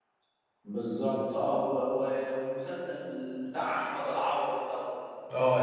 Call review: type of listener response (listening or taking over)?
listening